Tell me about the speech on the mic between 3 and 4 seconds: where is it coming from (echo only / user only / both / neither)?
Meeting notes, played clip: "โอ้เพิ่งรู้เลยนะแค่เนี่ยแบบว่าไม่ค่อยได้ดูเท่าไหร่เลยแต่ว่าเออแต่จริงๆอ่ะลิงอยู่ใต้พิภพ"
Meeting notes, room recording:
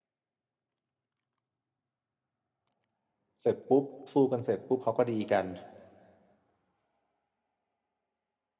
user only